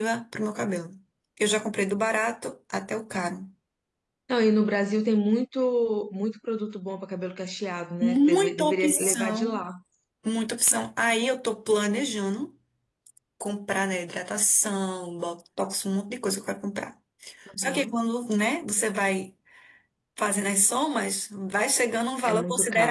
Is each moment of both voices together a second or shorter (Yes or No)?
No